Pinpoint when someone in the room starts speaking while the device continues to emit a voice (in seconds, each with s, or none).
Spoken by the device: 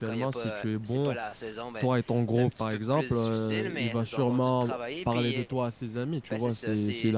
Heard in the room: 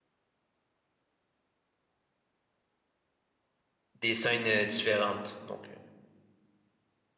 4.0 s